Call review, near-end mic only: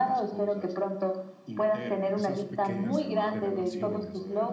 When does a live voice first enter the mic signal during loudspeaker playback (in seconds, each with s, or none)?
2.1 s